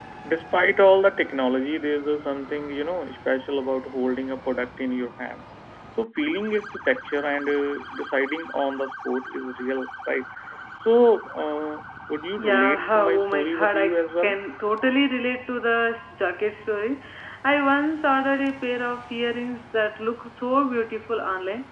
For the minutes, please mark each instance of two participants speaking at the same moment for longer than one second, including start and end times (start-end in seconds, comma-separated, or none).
12.4-14.3